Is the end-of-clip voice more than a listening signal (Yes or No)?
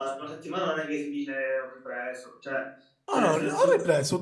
Yes